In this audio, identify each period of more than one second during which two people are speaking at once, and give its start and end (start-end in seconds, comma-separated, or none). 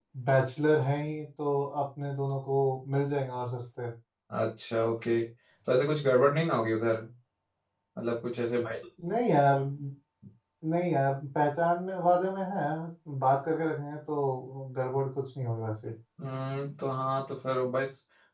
none